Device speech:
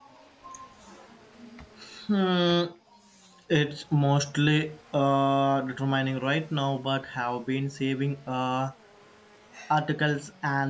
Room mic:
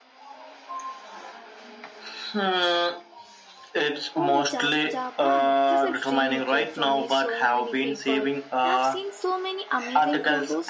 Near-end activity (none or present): present